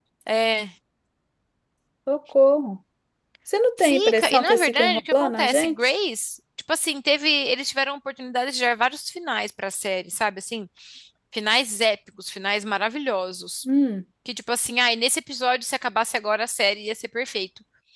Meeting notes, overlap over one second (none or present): present